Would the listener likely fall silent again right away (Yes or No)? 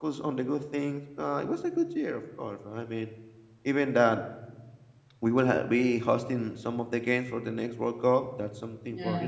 Yes